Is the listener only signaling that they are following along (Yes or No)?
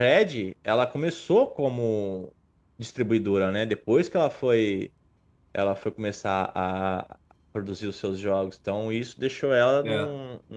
Yes